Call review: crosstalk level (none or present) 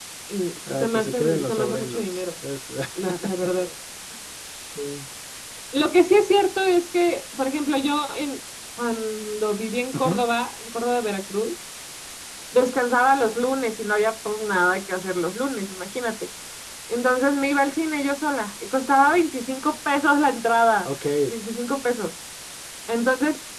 present